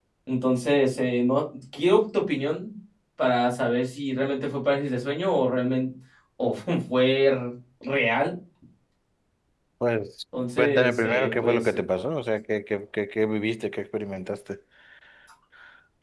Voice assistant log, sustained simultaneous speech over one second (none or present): present